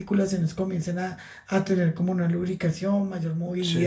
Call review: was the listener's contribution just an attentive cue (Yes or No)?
Yes